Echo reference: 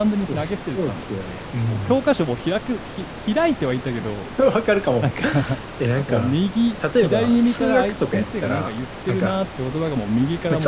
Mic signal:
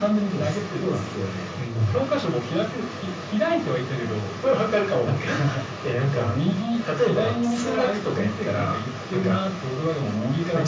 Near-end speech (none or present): none